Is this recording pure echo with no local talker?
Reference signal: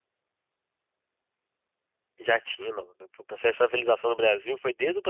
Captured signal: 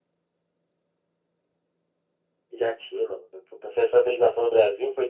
Yes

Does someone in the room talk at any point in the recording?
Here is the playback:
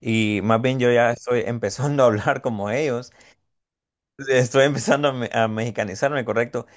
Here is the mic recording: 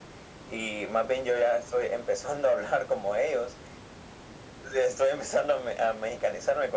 No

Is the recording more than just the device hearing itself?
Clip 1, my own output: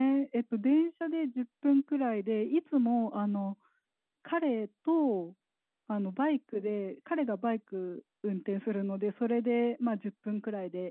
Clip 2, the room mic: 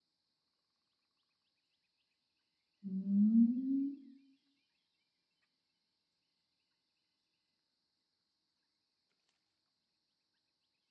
Yes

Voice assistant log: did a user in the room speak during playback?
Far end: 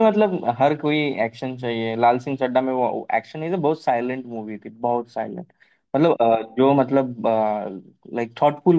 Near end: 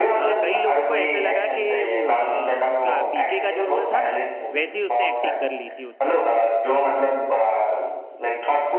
Yes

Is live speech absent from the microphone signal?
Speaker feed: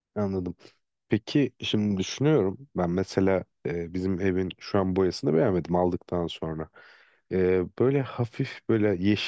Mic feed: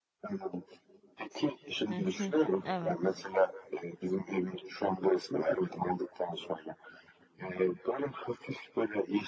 No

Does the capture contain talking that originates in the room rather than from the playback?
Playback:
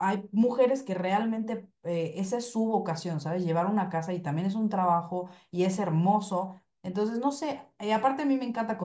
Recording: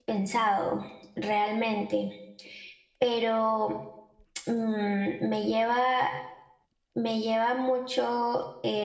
Yes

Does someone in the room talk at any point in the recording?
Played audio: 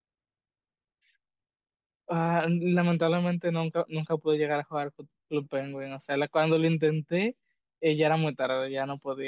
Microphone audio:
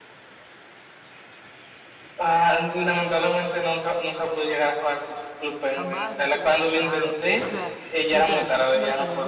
Yes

